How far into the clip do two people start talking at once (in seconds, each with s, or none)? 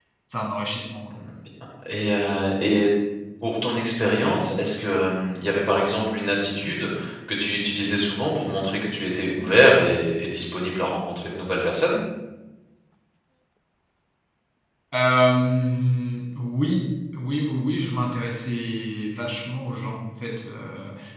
none